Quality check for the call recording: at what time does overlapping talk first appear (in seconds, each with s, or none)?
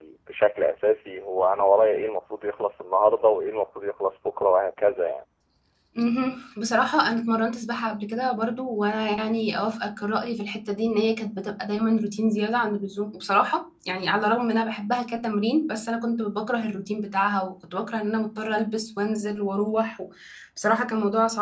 none